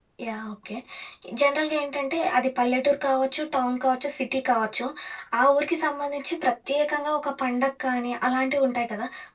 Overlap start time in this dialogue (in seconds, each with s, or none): none